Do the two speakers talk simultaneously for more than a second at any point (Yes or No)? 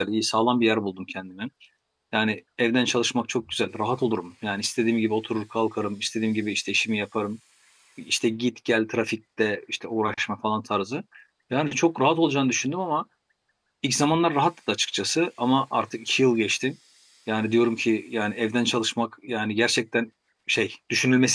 No